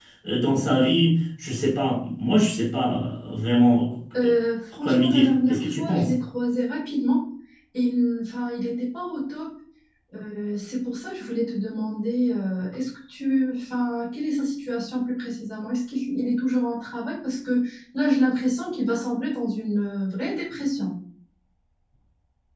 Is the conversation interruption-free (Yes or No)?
No